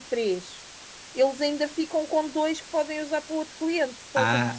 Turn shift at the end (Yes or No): Yes